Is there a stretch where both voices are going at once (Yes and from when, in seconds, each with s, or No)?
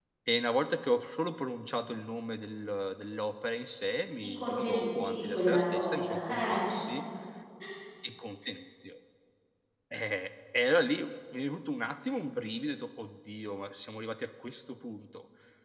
Yes, from 4.4 s